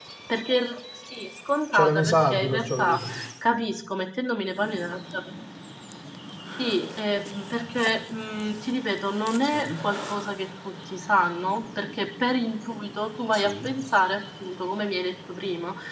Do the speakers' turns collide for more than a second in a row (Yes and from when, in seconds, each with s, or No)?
Yes, from 1.7 s